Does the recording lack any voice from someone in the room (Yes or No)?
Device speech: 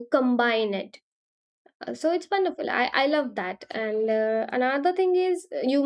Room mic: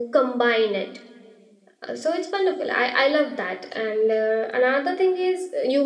Yes